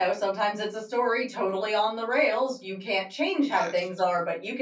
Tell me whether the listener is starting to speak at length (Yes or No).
No